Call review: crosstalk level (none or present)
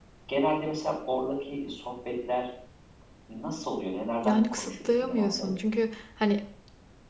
present